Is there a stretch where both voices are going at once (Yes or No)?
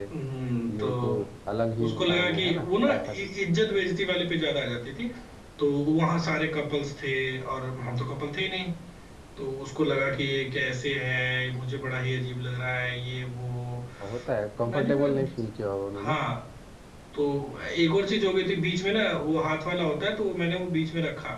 Yes